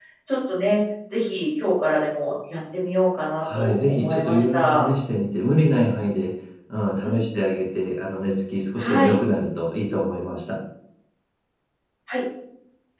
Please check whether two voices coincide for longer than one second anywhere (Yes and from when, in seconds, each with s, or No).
Yes, from 3.4 s